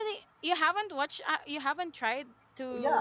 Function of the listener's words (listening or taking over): taking over